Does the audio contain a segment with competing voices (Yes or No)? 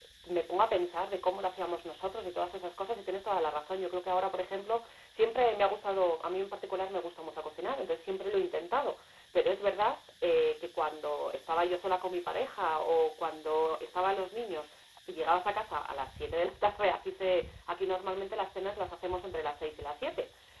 No